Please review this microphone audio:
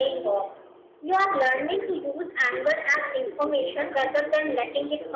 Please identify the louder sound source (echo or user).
user